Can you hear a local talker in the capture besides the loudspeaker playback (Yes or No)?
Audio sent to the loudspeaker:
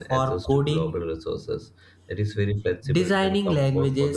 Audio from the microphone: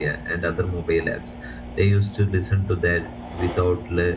Yes